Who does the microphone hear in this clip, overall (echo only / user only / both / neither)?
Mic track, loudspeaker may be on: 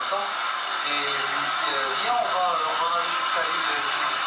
echo only